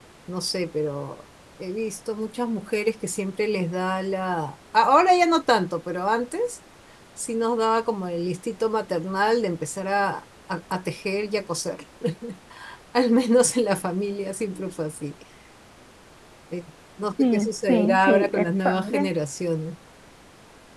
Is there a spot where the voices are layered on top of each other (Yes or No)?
Yes